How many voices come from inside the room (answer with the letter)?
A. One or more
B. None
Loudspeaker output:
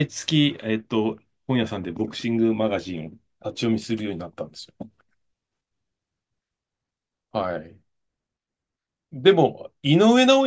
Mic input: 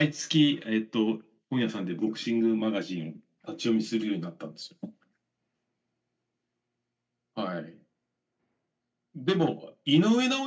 B